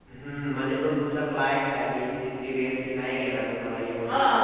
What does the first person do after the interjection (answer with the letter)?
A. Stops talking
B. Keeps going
A